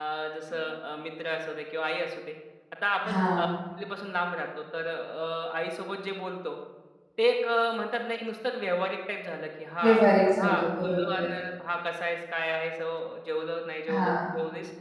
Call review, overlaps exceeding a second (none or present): present